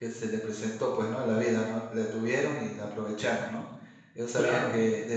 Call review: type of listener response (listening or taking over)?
listening